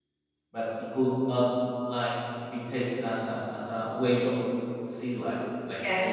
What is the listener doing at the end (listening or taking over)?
taking over